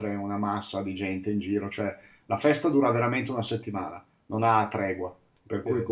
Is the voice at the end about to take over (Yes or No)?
Yes